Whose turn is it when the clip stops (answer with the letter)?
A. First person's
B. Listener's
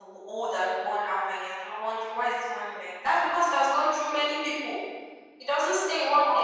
A